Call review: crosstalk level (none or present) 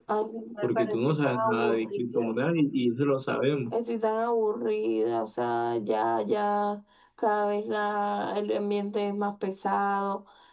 present